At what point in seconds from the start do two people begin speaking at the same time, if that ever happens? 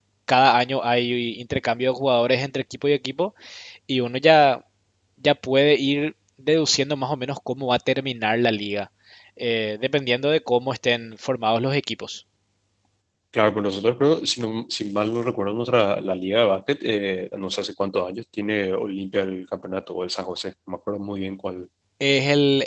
none

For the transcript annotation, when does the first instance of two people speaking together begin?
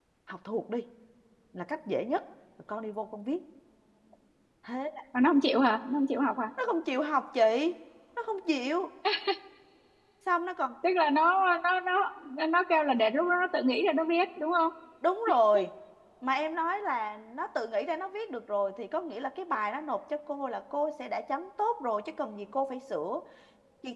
none

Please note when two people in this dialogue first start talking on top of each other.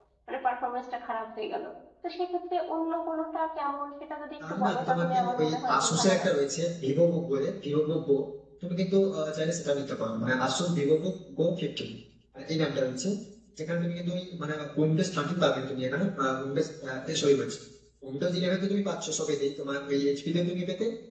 4.4 s

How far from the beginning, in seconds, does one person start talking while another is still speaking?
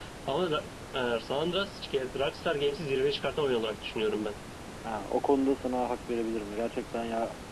none

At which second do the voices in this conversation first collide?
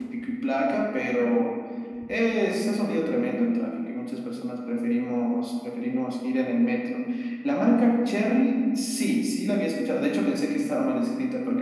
none

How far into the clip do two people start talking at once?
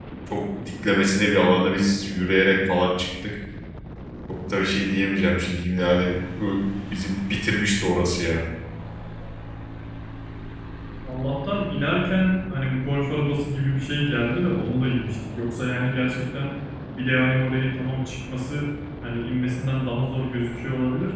none

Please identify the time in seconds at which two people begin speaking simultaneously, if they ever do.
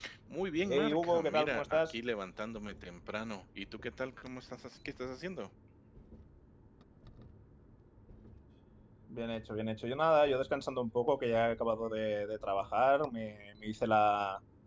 0.7 s

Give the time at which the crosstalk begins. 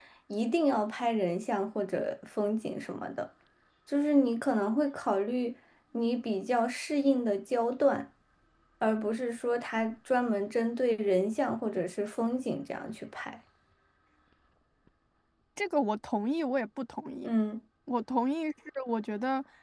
none

